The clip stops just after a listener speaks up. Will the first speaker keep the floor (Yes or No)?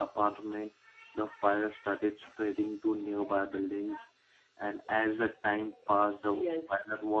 No